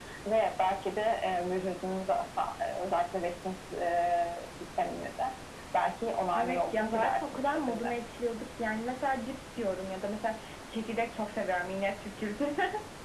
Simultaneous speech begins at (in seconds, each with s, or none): 6.3 s